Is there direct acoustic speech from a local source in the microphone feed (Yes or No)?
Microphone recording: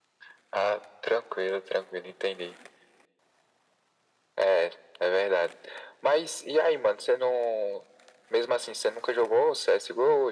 No